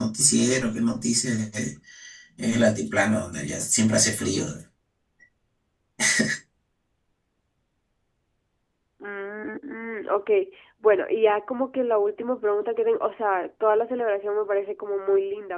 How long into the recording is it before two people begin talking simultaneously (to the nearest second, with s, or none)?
none